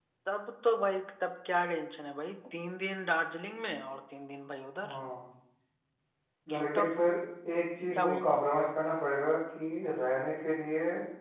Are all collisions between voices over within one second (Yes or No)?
Yes